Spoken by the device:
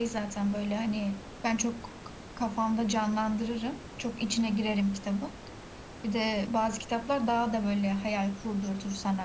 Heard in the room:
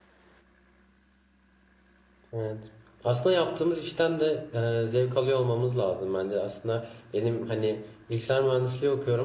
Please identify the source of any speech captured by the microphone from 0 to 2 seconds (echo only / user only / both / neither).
neither